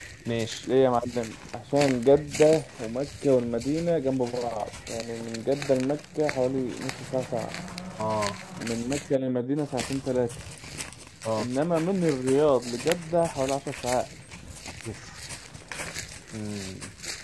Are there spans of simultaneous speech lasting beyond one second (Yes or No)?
No